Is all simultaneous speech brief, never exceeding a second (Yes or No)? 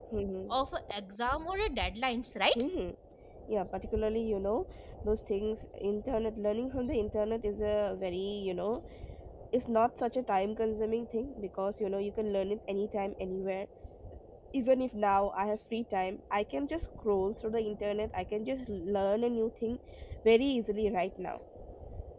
Yes